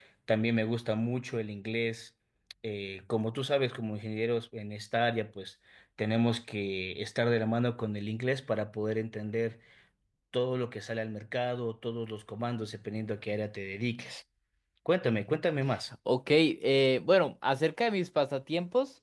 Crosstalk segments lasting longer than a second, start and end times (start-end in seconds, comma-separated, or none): none